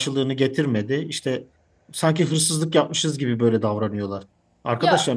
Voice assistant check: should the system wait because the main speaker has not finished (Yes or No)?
Yes